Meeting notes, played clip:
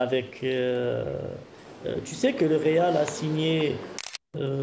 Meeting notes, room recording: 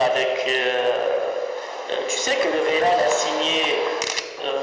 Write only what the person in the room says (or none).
none